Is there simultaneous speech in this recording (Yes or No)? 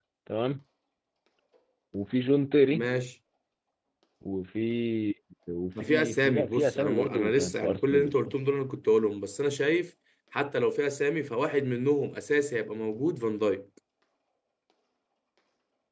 Yes